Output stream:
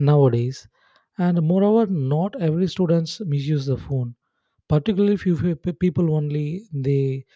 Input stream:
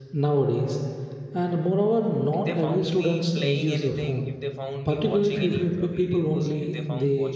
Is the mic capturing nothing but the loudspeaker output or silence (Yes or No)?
No